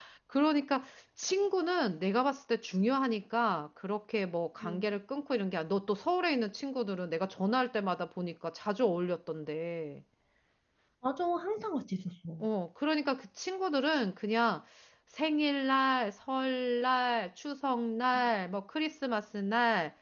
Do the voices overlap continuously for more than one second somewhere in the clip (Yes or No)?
No